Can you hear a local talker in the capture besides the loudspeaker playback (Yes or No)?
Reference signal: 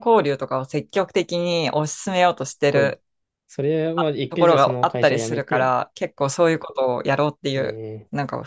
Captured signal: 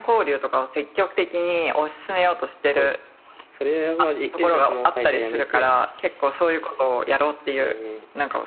No